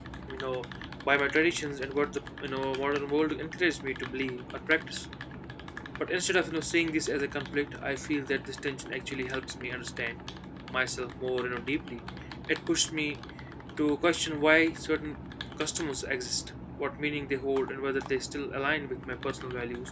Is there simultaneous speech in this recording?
No

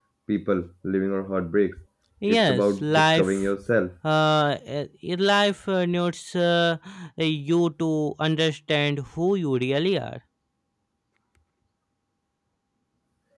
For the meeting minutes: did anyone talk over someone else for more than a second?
Yes, from 2.3 s

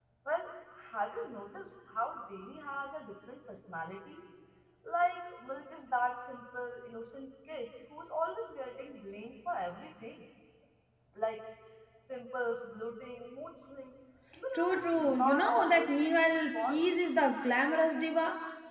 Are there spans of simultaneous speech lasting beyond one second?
Yes, from 14.5 s

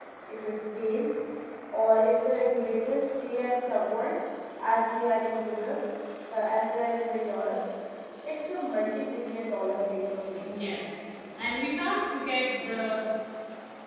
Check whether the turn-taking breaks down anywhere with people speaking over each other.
No

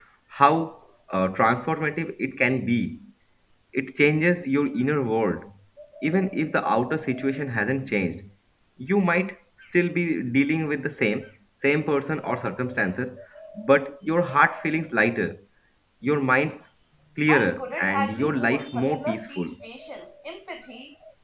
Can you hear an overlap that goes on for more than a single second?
Yes, from 17.3 s

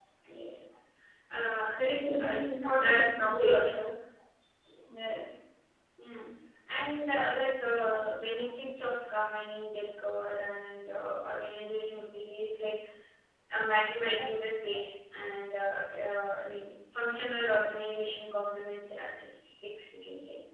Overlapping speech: Yes, from 1.8 s

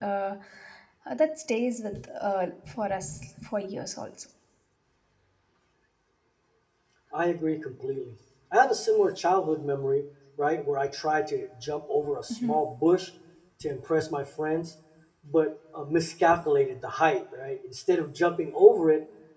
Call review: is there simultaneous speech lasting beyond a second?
No

